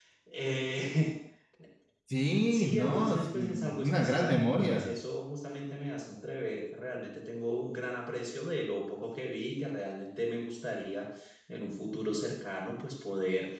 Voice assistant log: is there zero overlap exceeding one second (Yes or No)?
No